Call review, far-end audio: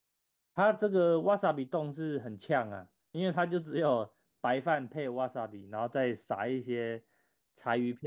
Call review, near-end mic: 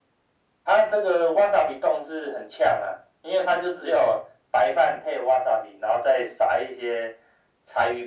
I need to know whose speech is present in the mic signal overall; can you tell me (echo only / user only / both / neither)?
echo only